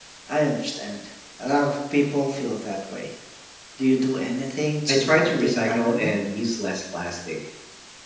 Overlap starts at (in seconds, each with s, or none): 4.9 s